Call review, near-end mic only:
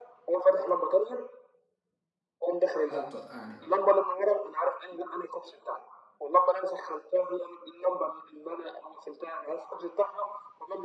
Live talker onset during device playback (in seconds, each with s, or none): 2.9 s